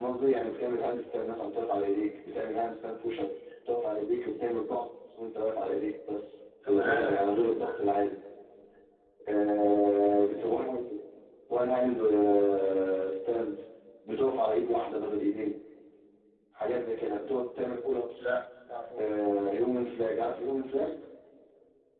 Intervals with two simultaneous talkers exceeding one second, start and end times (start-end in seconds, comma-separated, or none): 6.7-7.9